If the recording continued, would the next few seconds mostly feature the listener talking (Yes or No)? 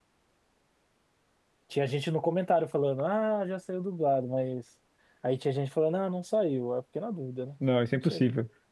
Yes